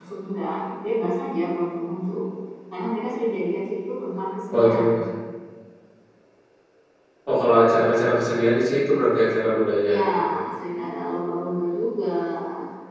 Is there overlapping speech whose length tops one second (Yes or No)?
No